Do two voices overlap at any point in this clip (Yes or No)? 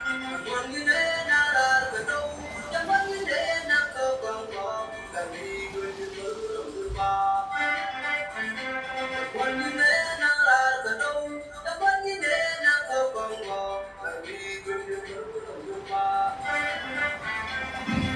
No